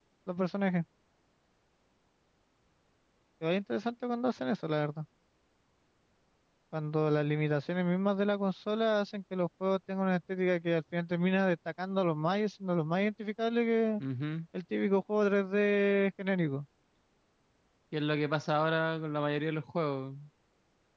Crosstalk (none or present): none